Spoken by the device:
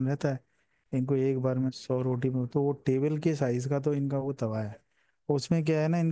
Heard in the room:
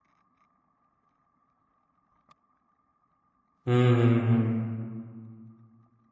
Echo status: none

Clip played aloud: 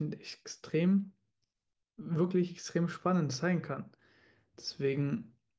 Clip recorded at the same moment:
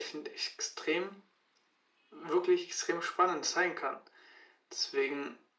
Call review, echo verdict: present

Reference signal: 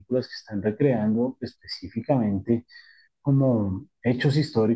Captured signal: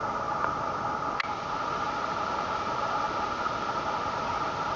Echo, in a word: none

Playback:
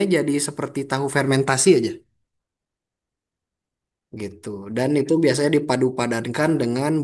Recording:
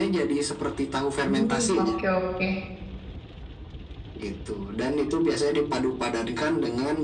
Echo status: present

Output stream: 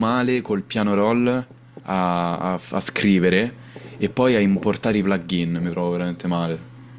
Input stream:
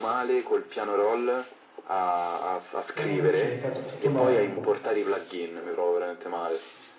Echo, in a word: present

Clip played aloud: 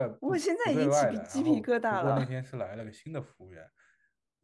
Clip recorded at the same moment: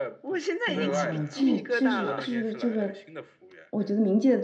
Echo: present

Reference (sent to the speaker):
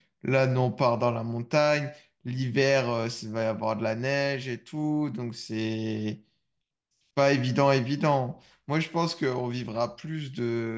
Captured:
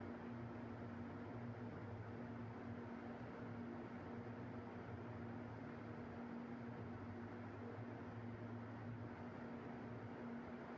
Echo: none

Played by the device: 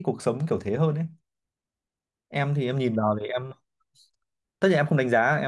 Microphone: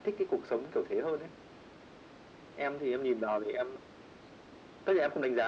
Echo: present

